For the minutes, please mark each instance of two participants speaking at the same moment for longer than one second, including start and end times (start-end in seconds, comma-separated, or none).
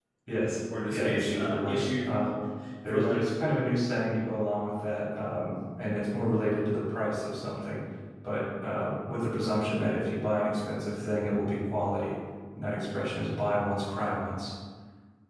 0.9-2.2